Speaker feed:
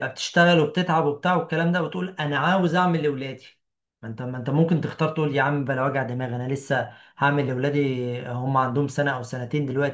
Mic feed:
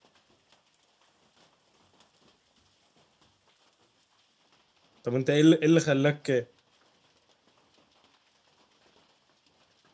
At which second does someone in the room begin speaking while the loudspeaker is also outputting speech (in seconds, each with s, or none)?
5.0 s